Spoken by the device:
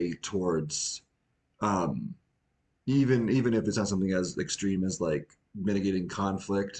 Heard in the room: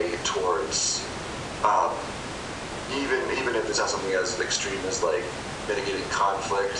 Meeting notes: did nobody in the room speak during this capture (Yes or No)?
Yes